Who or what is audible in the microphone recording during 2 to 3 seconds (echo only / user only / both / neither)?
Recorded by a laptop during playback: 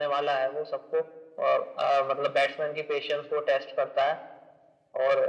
echo only